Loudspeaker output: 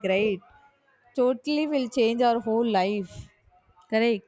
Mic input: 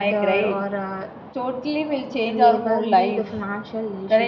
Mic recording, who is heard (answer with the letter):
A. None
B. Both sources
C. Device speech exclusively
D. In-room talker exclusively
B